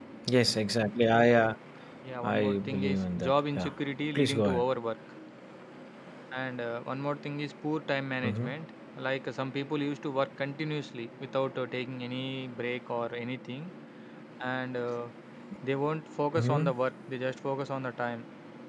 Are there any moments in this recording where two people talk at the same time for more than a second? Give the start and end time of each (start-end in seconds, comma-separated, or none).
2.2-3.7